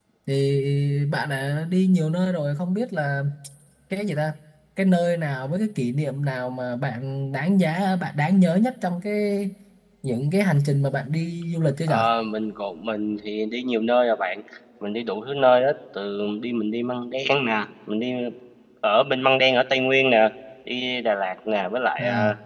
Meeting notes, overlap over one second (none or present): none